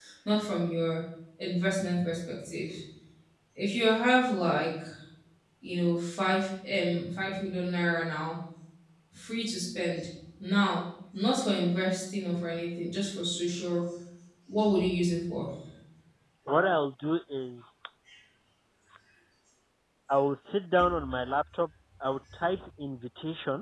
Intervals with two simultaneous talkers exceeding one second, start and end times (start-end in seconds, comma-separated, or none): none